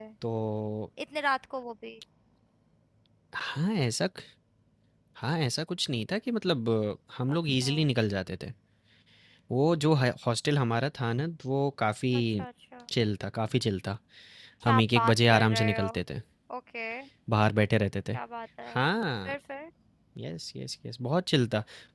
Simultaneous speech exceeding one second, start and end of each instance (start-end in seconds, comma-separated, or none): 14.7-15.9